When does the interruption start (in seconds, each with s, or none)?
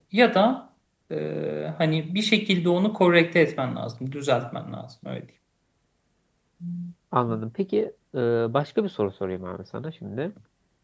none